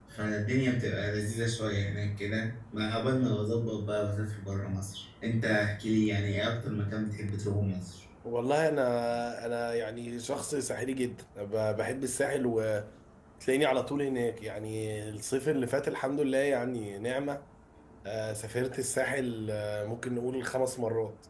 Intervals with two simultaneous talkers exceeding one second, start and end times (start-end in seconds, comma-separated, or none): none